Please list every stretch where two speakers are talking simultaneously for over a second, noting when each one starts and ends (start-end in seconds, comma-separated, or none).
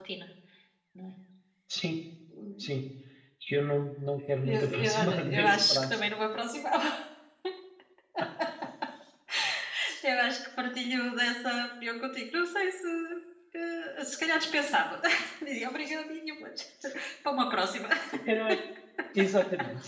4.4-6.0